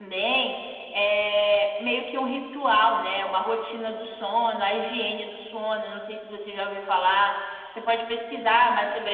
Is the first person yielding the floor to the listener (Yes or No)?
No